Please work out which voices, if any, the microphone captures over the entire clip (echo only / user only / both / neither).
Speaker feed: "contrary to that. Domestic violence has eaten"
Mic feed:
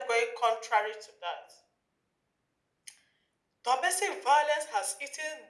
echo only